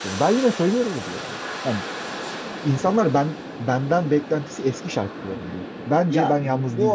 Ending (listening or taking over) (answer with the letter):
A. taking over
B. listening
A